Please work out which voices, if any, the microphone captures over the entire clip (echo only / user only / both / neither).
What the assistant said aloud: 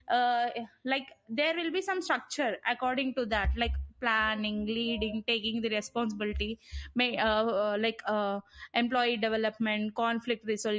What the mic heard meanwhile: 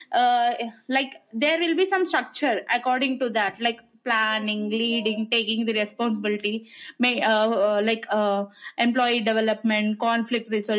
echo only